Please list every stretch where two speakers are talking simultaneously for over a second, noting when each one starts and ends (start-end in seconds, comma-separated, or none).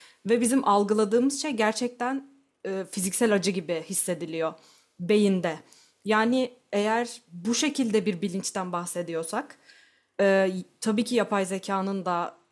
none